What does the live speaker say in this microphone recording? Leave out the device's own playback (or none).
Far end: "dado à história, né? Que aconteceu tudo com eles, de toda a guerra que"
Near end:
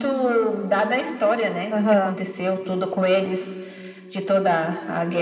Aham.